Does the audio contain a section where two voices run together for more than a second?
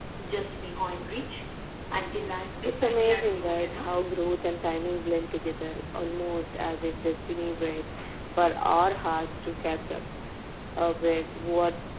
Yes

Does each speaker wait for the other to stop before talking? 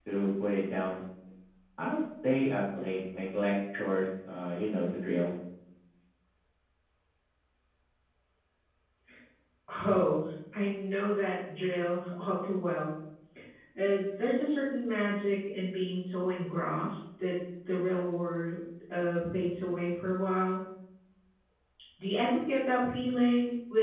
Yes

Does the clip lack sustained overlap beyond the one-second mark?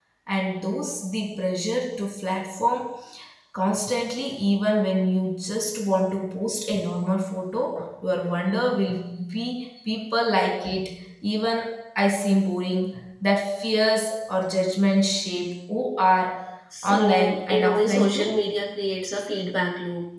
No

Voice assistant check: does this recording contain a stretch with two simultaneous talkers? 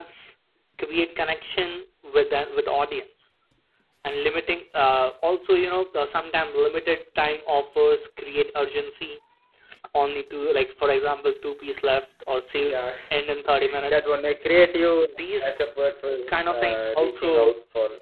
Yes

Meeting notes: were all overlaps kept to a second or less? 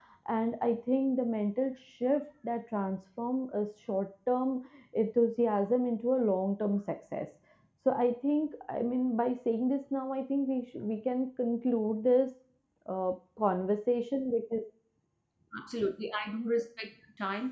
Yes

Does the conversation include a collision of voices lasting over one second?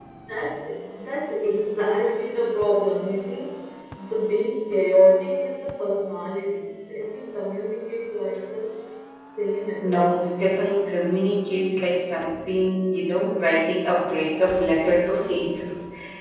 No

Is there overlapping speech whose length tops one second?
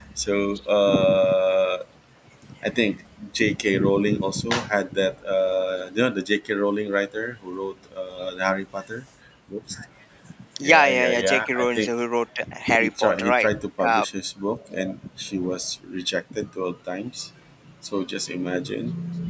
Yes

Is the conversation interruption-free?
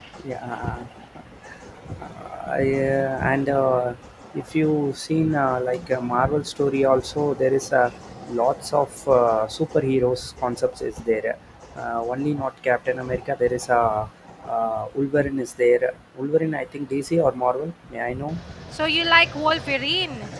Yes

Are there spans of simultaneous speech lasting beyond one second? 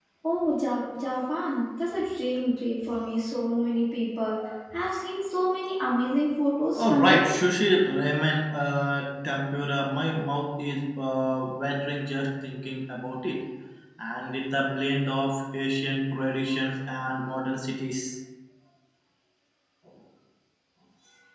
No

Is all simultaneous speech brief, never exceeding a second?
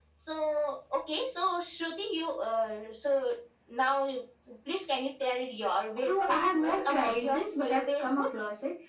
No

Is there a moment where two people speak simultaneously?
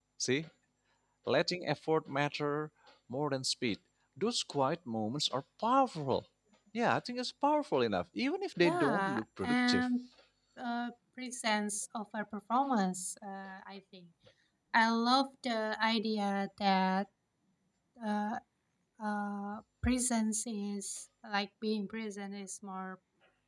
Yes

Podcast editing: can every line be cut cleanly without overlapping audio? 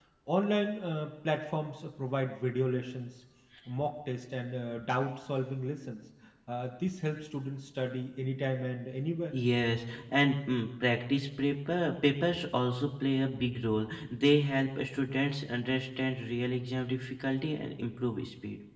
Yes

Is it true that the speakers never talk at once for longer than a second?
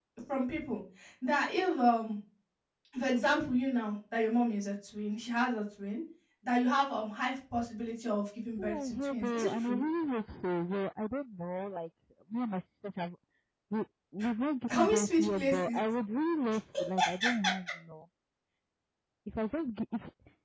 No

